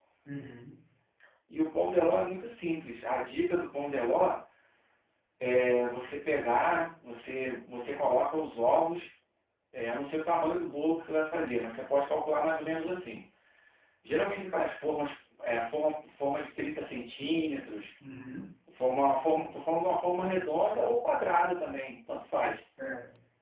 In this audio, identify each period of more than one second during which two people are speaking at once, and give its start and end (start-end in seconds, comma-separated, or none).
none